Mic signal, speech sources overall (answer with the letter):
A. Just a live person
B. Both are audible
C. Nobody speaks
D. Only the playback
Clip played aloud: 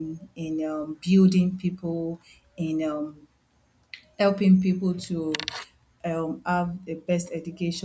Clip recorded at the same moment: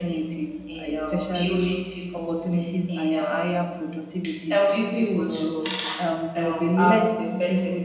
B